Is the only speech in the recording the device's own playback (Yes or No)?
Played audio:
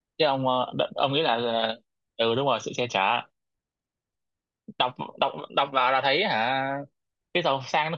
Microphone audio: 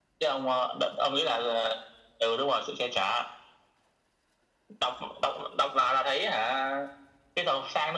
Yes